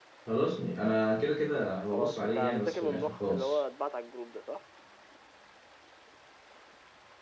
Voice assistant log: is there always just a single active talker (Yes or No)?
No